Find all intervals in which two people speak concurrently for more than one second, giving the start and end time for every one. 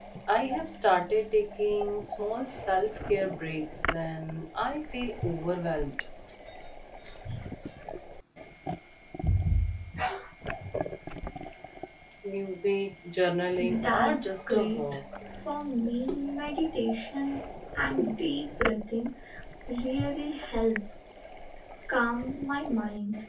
13.6-14.8

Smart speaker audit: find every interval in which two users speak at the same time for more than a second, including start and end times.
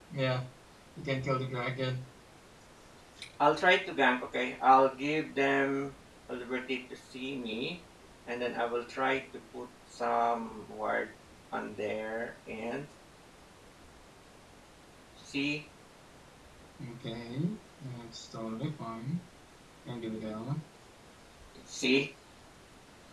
none

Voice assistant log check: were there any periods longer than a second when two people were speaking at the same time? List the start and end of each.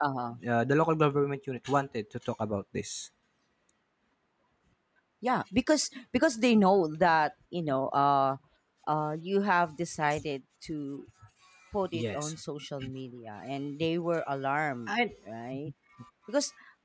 none

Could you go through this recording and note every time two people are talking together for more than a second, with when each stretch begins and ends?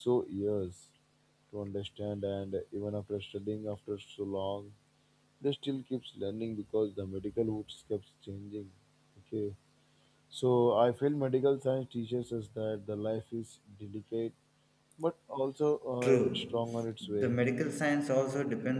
16.0-17.4

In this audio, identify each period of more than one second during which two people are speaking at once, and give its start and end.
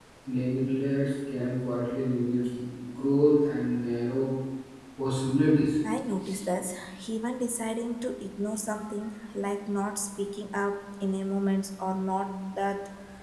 none

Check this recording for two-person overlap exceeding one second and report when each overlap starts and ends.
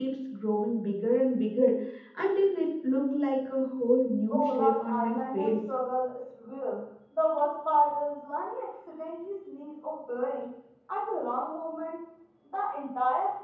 4.3-5.5

